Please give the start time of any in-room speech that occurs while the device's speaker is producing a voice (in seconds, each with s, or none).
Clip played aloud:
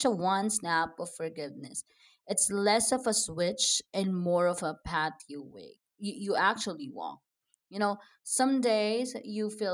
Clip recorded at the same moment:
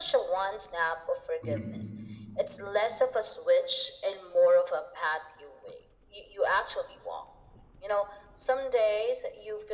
1.4 s